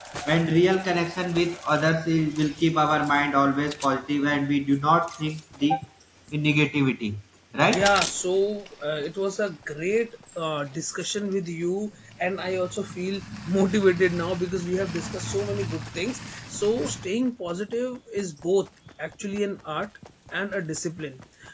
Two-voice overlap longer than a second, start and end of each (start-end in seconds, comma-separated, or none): none